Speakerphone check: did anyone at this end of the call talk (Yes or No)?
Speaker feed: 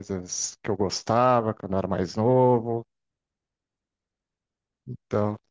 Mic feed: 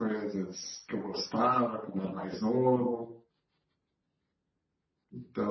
No